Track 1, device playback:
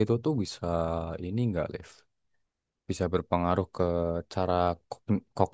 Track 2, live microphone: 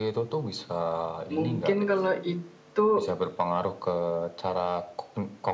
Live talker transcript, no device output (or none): Mungkin kalau itu